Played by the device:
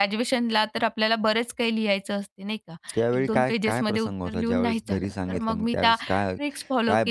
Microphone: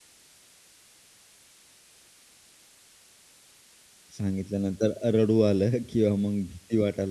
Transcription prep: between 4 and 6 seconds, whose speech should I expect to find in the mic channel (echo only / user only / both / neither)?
user only